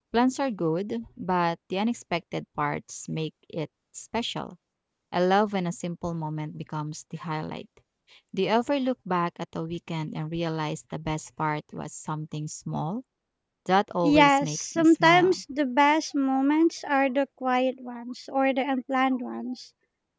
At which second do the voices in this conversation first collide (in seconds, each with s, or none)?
14.0 s